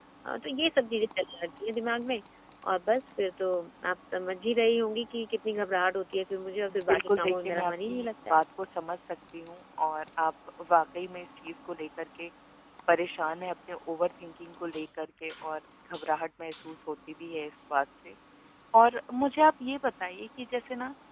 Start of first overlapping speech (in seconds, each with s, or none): 6.7 s